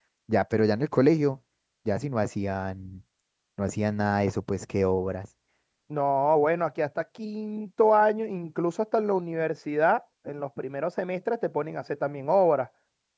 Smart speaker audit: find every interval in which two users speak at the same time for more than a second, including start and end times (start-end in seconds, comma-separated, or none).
none